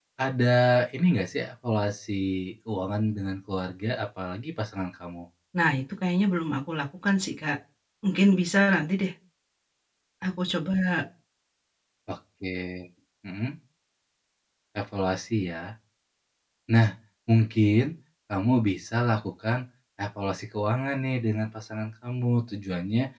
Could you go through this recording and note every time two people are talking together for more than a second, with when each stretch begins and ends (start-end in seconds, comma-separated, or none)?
none